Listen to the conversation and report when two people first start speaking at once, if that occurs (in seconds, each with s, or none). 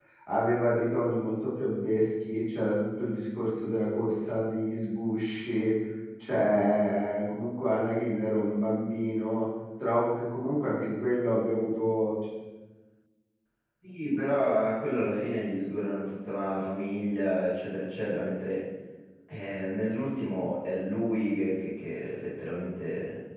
none